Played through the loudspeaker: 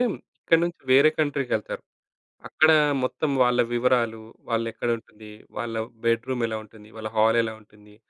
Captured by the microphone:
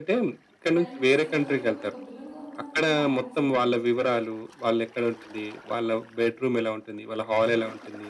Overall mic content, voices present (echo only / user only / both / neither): both